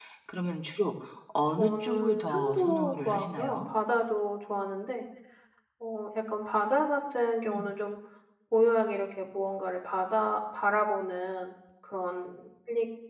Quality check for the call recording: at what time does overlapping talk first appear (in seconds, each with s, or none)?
1.6 s